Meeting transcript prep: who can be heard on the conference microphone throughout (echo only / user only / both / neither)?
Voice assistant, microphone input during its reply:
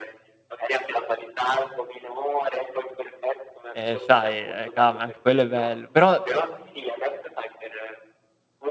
both